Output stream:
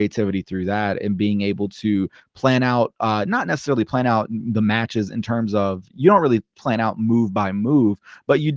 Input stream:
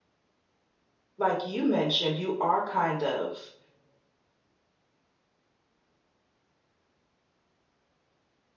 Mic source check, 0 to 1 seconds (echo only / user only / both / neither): neither